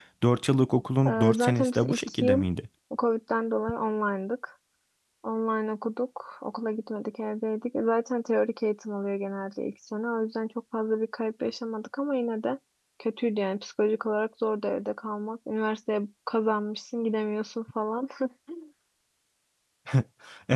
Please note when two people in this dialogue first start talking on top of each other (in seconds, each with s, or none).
1.1 s